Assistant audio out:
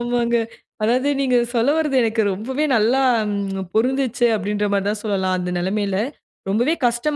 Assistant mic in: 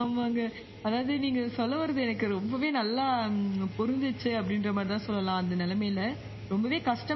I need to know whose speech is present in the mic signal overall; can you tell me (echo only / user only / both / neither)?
echo only